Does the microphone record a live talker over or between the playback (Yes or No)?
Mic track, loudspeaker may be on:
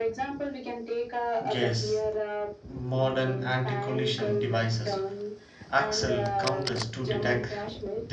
Yes